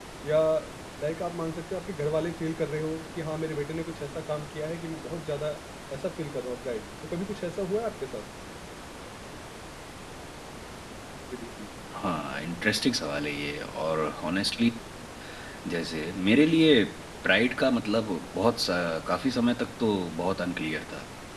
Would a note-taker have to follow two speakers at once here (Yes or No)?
No